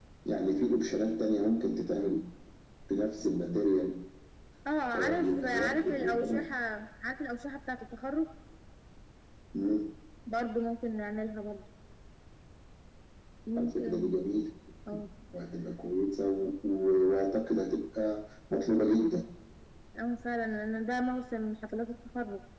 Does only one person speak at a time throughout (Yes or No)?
No